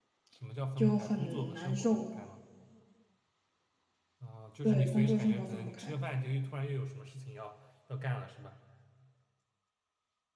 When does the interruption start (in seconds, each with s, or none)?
0.8 s